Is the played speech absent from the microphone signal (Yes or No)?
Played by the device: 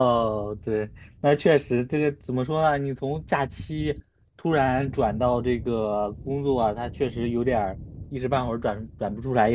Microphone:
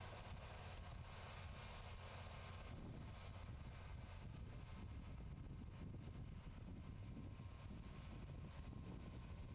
Yes